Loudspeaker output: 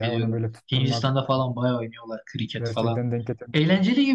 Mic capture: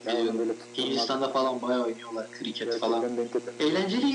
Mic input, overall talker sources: echo only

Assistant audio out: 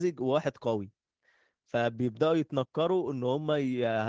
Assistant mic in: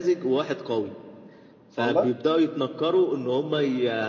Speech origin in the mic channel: both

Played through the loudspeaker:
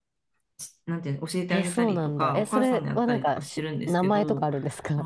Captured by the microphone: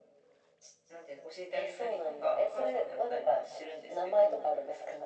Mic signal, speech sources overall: echo only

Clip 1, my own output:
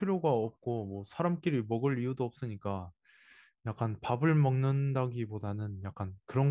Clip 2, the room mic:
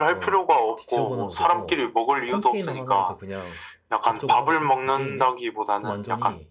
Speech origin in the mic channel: both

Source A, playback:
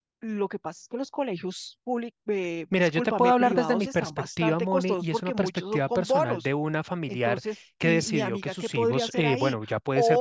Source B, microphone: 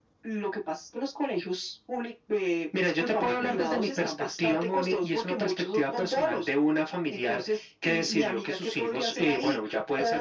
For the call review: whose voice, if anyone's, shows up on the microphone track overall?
echo only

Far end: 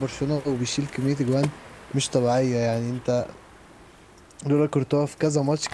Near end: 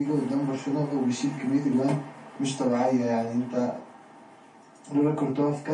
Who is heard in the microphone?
echo only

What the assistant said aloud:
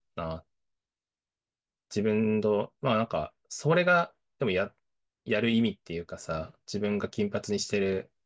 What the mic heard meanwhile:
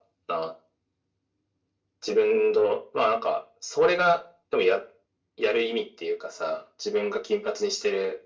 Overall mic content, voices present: echo only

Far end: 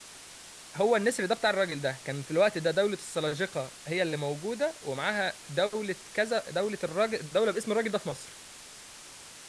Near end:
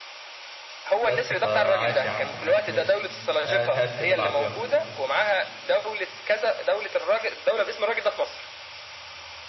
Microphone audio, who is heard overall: both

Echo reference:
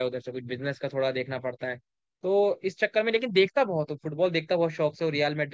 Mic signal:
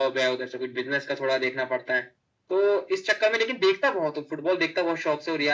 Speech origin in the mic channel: echo only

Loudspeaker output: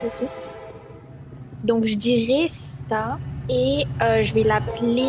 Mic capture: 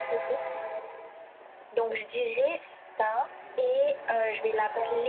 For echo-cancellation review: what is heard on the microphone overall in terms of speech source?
both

